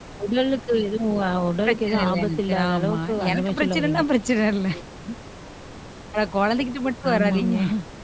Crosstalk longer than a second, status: present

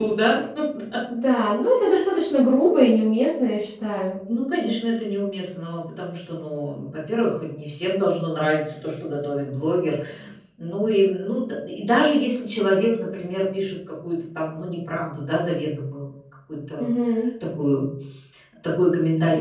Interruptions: none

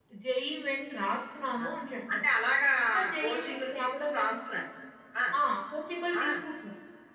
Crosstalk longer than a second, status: present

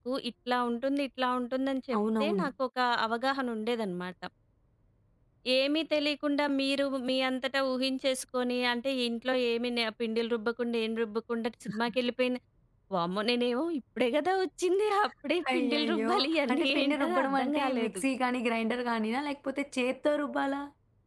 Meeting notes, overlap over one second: present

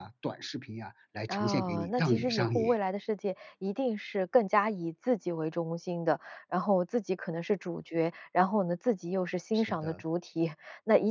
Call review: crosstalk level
present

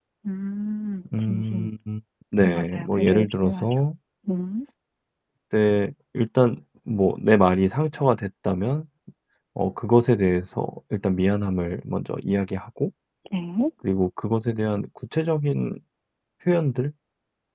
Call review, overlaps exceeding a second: present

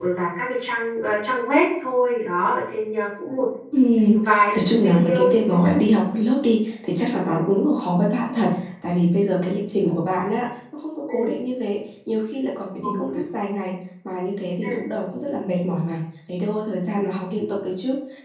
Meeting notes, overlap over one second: present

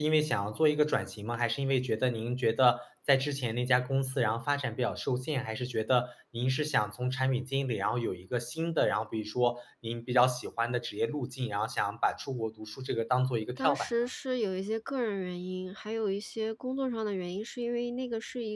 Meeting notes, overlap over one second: none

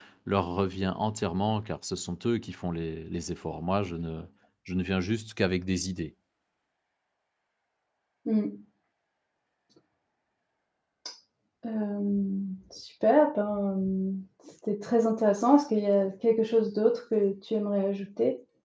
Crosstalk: none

